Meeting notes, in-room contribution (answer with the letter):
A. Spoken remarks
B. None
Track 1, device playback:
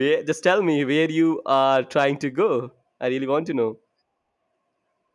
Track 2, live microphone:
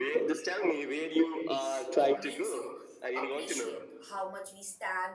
A